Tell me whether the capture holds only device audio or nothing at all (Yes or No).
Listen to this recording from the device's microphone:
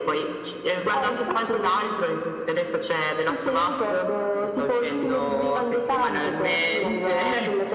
Yes